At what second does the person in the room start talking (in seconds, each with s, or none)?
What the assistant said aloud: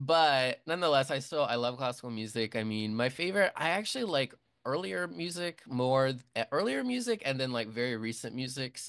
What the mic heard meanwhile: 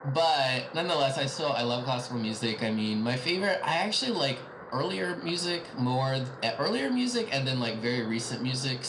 none